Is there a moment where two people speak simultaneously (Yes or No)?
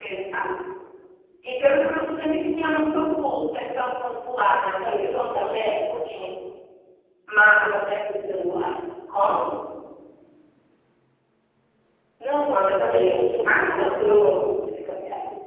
Yes